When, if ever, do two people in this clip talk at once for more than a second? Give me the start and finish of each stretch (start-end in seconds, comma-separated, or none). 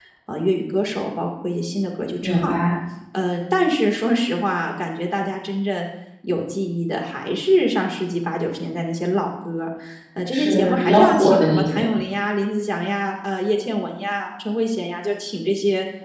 10.3-11.9